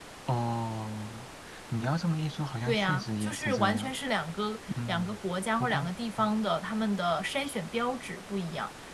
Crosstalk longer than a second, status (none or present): present